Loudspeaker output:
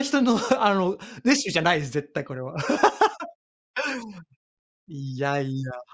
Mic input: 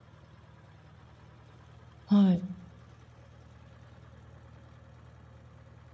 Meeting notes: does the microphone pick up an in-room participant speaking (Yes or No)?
Yes